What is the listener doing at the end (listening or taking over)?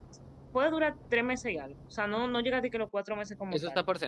taking over